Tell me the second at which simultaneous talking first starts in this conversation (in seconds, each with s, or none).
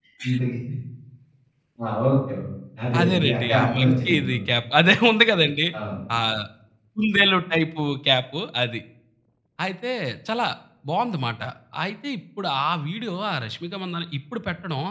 3.0 s